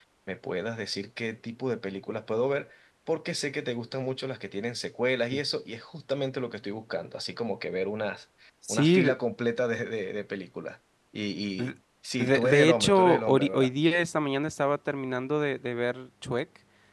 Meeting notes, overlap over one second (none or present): present